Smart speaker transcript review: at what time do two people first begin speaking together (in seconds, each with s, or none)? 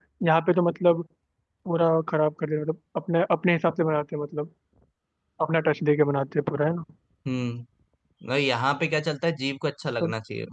none